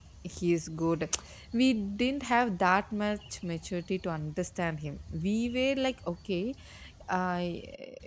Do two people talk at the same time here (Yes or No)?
No